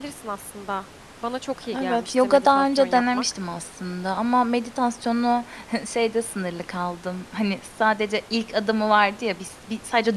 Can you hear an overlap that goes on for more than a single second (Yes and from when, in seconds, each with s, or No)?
Yes, from 1.6 s